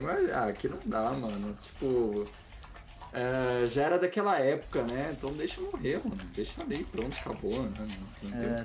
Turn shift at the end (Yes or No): Yes